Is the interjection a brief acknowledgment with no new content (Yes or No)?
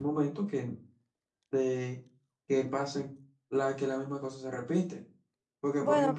Yes